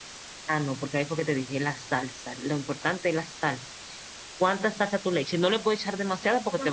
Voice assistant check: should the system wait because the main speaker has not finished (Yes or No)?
No